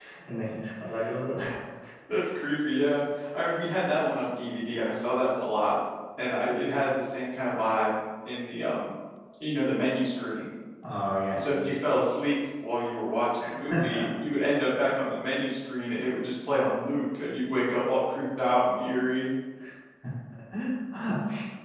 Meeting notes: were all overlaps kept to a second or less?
Yes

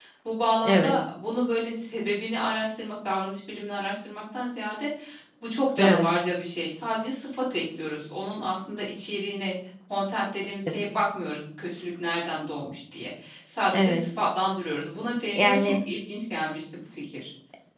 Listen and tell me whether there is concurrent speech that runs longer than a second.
No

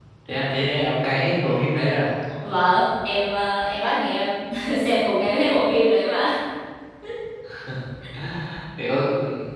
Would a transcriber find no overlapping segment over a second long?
Yes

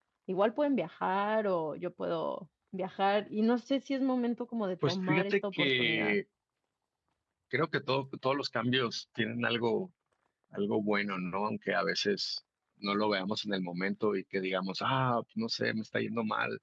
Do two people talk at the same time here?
Yes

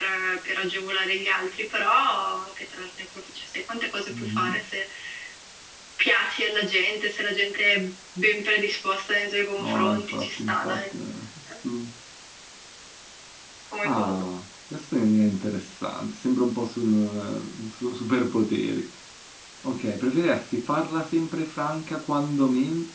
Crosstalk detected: Yes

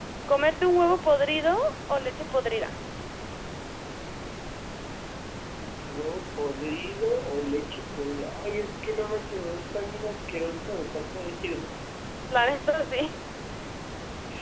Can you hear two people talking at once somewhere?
No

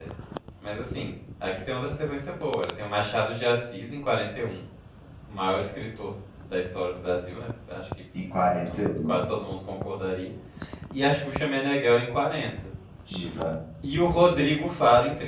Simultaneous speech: No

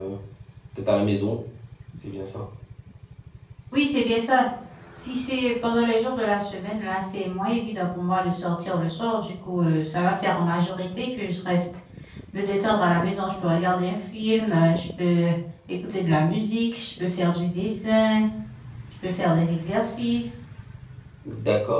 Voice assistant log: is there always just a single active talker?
Yes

